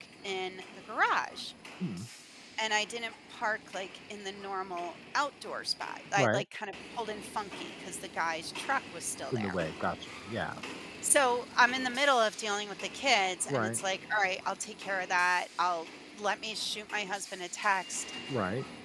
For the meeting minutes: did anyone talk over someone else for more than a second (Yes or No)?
No